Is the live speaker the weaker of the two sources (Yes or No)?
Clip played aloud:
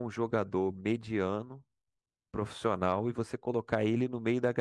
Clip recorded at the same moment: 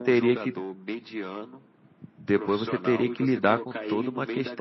No